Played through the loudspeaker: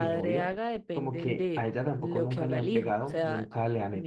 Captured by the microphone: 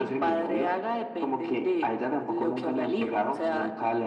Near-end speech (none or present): none